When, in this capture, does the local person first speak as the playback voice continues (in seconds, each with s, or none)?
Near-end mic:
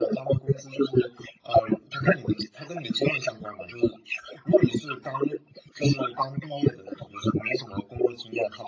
none